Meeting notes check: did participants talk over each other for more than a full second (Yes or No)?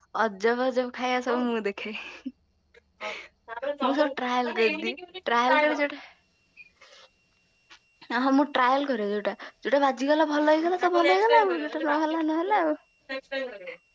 Yes